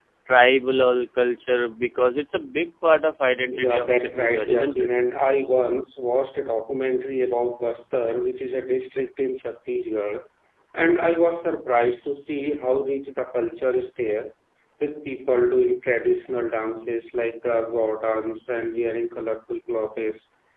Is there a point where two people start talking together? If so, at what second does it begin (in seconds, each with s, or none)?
3.5 s